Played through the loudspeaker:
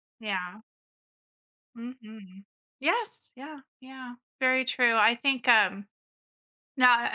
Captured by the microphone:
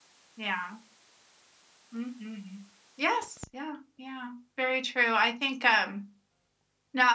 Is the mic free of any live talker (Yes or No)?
Yes